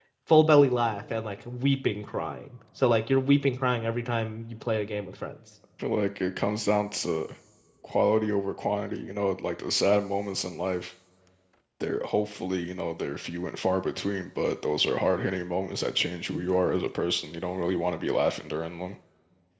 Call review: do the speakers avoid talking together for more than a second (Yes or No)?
Yes